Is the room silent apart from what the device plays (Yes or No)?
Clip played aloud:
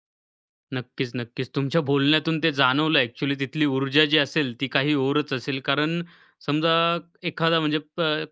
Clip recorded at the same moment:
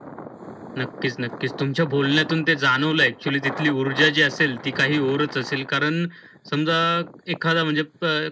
Yes